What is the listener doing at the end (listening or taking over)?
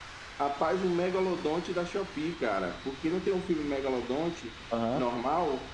listening